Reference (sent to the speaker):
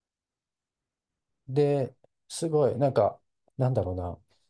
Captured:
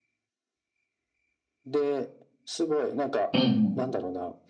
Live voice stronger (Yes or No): Yes